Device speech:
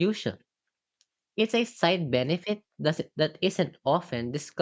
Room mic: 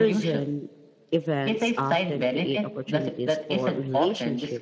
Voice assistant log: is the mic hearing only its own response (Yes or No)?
No